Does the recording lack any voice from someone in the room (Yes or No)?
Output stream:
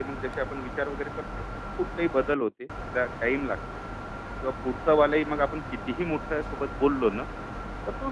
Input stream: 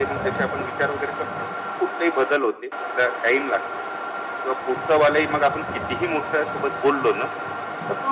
Yes